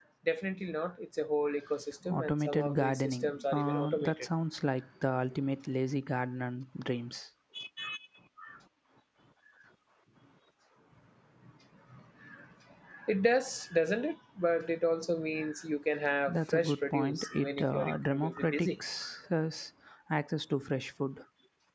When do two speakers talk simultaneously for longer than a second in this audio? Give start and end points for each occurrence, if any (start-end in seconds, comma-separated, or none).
2.1-4.1, 16.3-18.7